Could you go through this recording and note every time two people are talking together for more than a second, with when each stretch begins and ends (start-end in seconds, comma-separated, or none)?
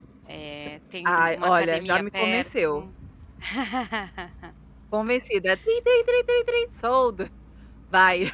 1.0-2.8